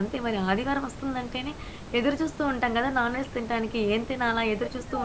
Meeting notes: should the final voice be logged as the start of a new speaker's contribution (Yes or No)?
Yes